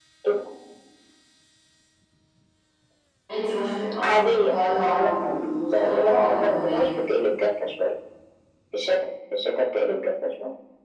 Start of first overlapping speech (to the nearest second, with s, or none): 4 s